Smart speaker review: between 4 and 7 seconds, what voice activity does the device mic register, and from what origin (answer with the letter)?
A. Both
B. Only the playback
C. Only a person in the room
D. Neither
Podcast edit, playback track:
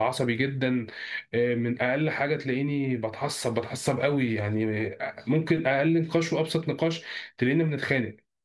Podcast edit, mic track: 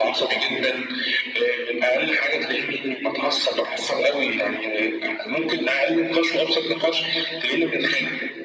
B